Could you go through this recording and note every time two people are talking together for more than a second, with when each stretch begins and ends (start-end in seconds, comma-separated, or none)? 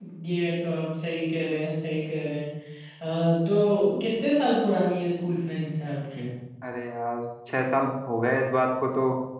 none